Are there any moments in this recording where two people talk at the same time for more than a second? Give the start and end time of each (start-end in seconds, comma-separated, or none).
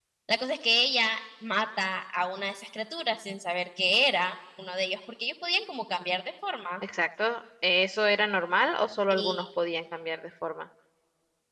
none